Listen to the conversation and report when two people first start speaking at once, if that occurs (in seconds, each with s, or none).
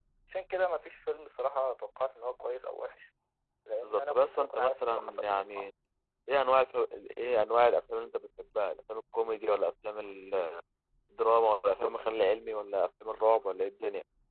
3.8 s